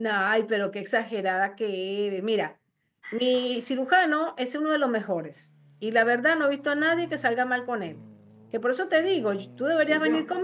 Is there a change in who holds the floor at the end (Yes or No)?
No